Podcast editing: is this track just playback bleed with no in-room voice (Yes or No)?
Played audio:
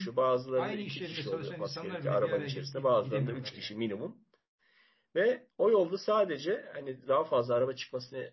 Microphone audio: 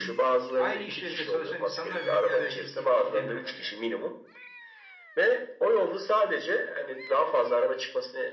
Yes